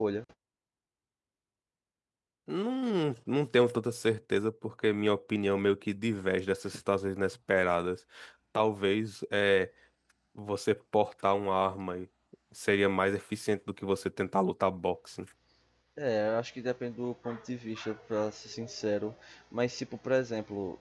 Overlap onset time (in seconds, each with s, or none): none